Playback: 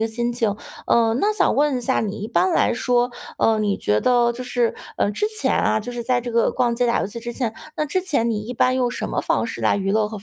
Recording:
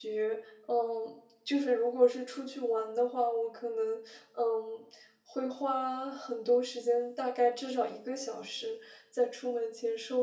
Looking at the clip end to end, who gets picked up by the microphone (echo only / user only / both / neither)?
user only